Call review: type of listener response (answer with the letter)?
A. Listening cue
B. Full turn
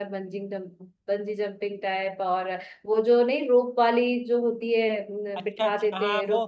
B